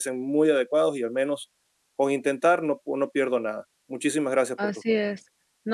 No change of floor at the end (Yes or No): No